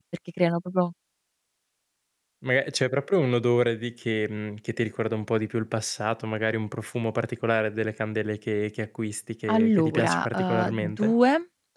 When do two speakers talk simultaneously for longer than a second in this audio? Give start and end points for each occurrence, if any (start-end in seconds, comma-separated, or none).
9.5-11.1